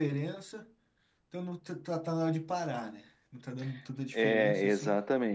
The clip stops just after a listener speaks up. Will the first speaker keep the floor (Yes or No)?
No